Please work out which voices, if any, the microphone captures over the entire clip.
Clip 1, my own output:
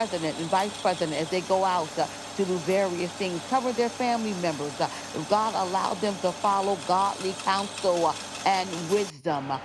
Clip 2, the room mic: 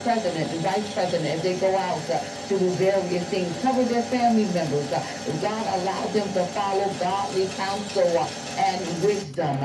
echo only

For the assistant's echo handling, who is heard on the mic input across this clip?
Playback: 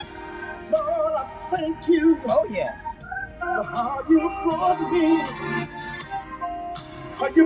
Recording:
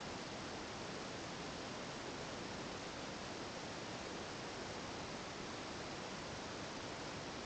neither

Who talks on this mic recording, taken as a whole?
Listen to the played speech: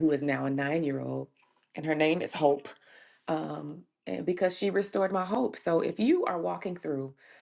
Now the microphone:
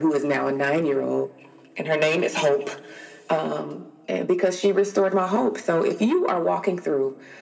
echo only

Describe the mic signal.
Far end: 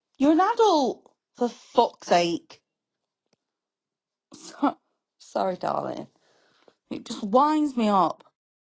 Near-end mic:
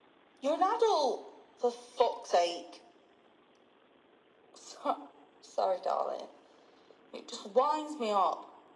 echo only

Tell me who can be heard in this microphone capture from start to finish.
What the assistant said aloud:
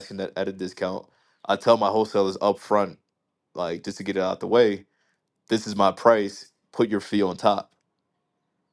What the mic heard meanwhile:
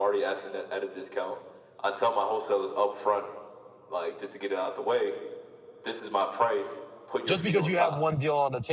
both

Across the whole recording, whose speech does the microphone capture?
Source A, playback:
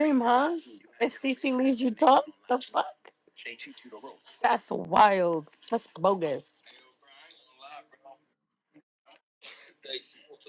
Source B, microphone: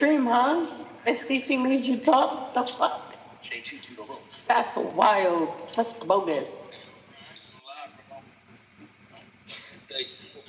echo only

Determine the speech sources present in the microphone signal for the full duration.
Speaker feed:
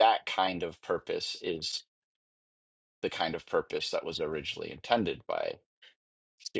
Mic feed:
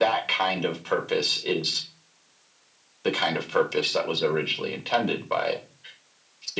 echo only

